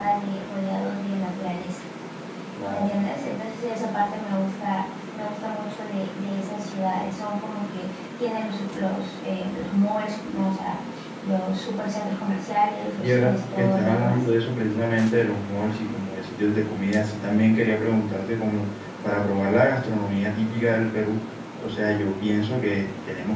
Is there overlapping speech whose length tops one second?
Yes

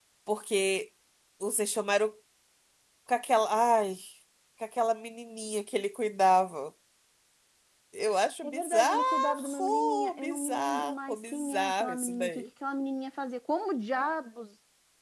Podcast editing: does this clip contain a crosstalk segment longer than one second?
Yes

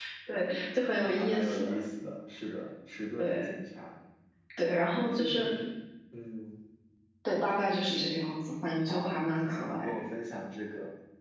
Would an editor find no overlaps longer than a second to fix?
No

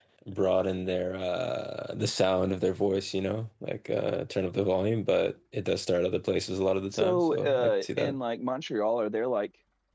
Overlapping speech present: Yes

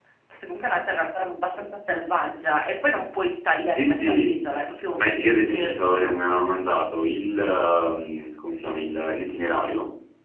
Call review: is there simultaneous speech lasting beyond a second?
Yes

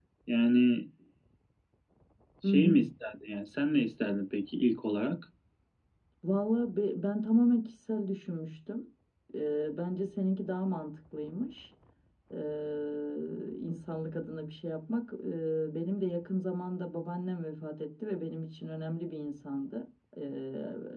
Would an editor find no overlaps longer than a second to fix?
Yes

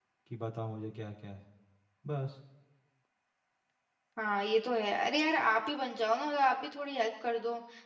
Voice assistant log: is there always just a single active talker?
Yes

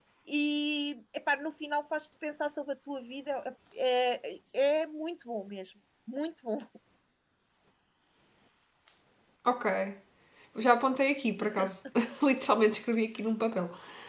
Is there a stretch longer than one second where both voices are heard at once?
No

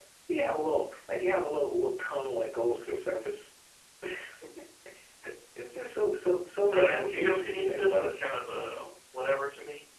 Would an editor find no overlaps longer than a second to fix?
No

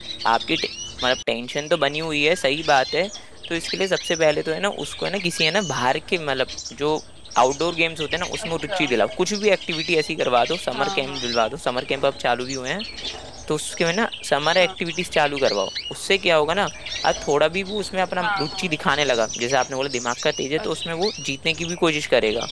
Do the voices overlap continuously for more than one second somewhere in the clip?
No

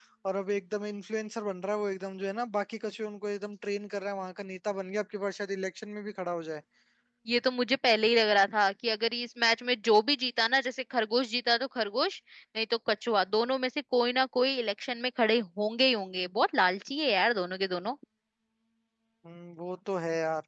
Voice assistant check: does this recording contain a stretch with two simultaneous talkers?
No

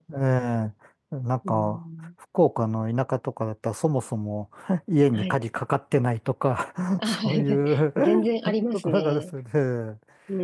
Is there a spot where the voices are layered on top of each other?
Yes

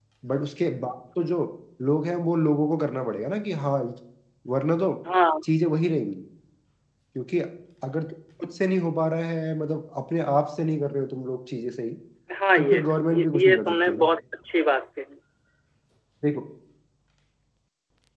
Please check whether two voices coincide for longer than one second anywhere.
Yes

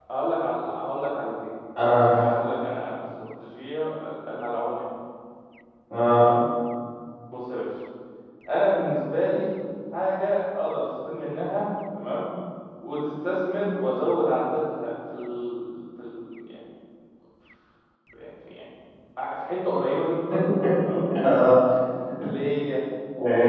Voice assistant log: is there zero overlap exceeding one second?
Yes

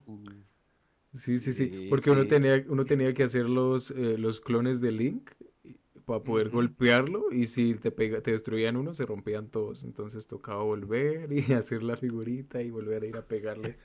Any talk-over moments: Yes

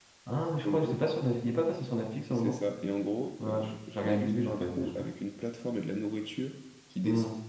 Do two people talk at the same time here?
Yes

